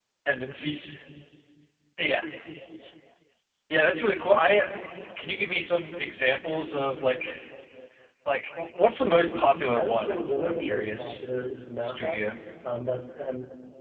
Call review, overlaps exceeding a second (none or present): present